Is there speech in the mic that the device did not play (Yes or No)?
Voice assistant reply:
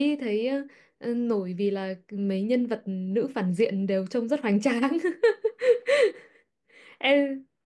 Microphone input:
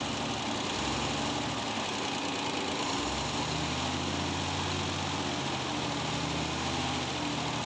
No